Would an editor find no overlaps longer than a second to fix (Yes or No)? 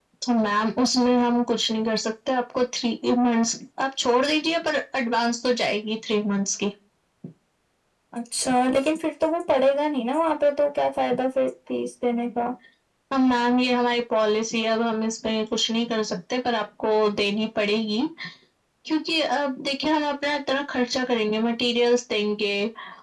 Yes